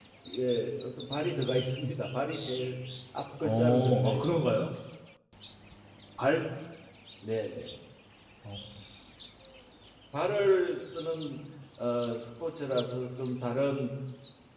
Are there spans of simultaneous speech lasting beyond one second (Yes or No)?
Yes